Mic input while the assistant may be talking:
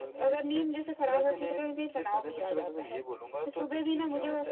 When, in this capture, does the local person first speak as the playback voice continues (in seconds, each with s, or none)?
none